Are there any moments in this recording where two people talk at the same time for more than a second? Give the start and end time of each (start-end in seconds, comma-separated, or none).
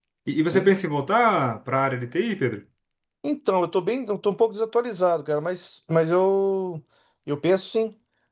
none